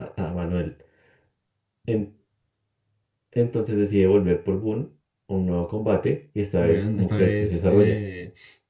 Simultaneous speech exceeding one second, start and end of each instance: 6.6-8.0

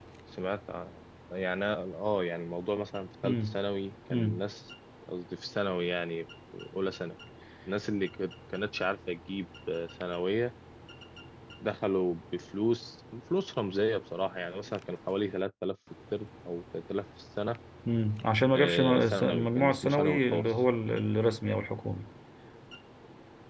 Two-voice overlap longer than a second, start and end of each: 18.6-20.5

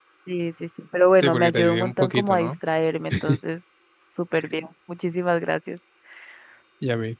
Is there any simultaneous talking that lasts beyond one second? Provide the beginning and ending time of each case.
1.2-2.5

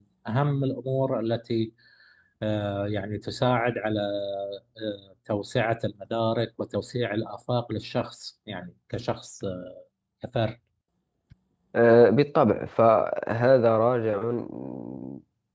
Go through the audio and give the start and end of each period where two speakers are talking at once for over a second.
none

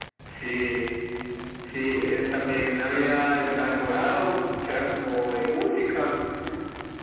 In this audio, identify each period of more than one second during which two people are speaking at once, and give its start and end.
none

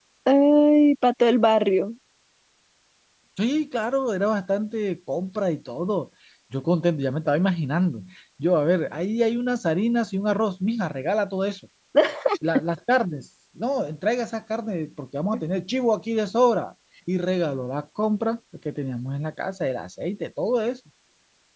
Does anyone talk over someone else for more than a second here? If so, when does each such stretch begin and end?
none

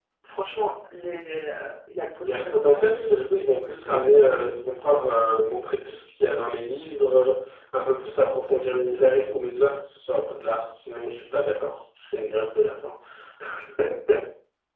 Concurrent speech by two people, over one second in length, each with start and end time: 2.2-4.1

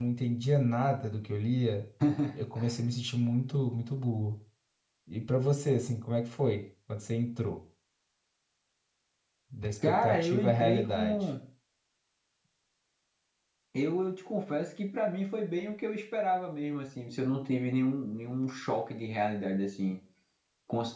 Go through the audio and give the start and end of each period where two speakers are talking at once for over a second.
9.8-11.3

